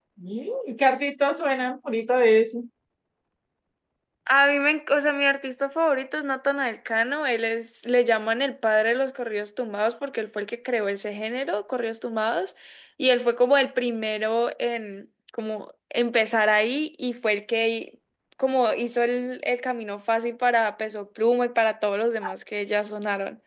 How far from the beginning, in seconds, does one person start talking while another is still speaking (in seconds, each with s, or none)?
none